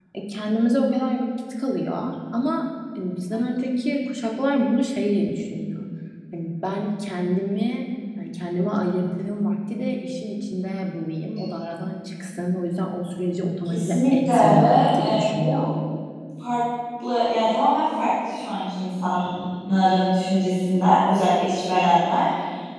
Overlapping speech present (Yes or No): Yes